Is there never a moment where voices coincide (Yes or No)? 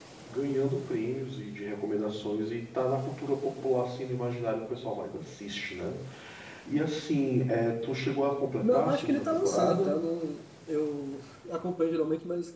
No